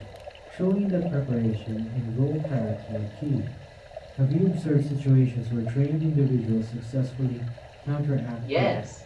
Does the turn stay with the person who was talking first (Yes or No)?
No